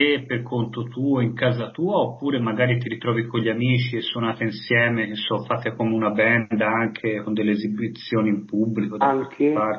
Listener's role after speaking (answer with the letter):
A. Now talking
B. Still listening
A